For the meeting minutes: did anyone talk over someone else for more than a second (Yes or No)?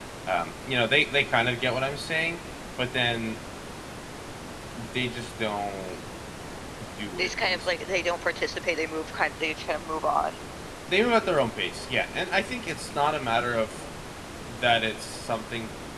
No